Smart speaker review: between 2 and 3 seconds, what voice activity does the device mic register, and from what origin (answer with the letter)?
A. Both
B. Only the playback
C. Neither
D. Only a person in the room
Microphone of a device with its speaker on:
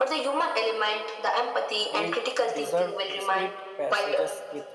A